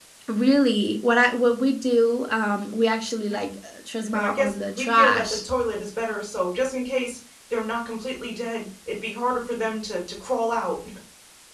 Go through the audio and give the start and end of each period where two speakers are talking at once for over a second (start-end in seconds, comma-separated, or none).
4.1-5.5